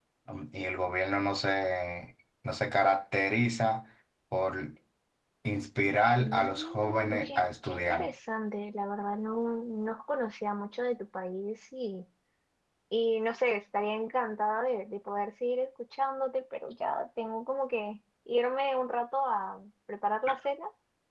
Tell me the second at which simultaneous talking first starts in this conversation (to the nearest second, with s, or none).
6 s